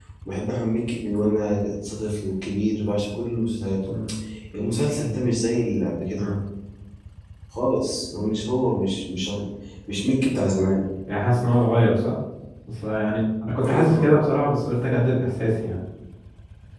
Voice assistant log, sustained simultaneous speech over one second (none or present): none